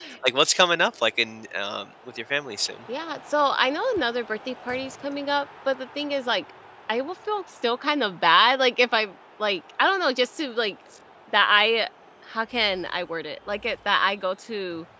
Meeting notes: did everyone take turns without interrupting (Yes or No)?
Yes